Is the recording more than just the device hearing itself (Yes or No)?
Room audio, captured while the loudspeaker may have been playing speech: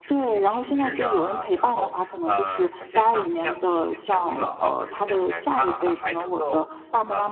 Yes